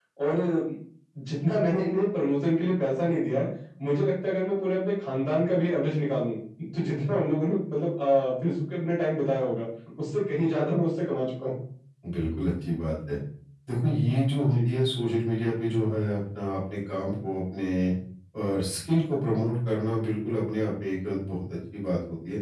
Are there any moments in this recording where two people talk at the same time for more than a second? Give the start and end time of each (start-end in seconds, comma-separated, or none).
none